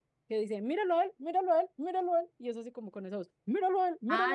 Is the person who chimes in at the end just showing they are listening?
No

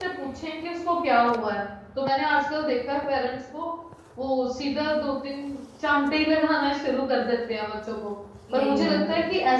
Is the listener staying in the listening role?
Yes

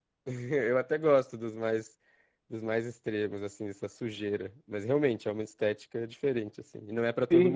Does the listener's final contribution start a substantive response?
Yes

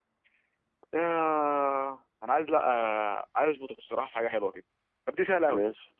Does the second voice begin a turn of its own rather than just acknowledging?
No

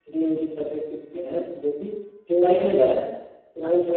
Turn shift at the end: No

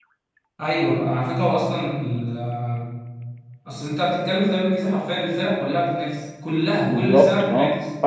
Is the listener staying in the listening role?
No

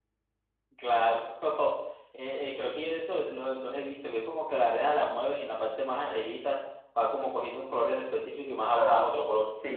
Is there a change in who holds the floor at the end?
Yes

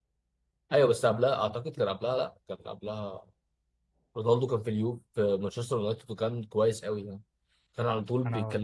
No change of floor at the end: Yes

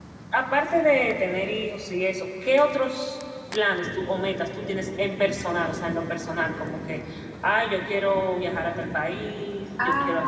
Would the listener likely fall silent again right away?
No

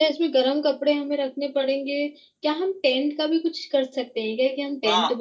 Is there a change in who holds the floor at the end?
Yes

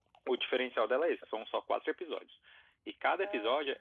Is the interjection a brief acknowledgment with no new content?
Yes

